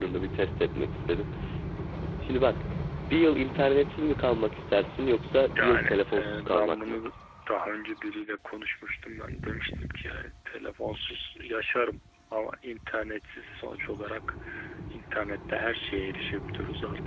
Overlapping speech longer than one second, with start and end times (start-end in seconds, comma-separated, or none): 5.5-7.0